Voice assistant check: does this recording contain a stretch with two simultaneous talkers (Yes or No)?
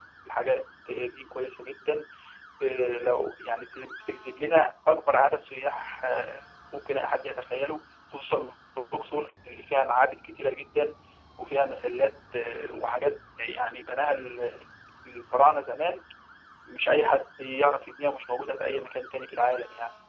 No